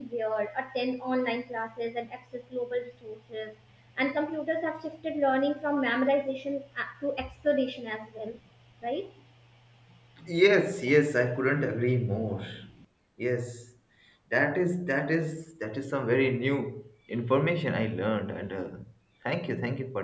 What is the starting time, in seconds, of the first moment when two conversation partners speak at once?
none

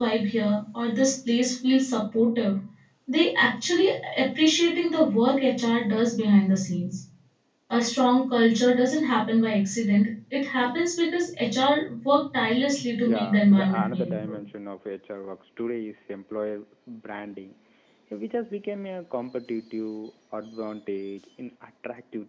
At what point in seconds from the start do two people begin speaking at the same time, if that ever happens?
13 s

